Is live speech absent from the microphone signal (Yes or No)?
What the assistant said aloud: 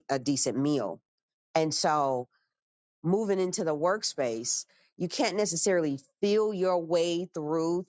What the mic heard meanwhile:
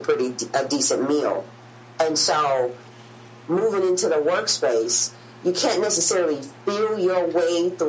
Yes